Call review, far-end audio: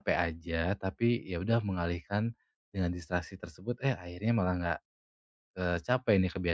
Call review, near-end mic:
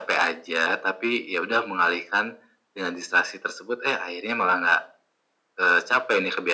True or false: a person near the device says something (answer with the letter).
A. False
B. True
A